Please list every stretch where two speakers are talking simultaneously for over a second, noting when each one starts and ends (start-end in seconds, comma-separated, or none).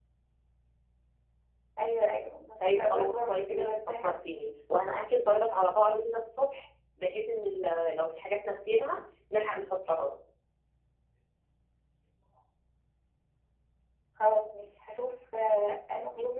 2.8-4.1